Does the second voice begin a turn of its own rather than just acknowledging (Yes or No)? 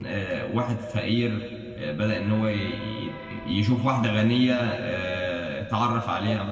No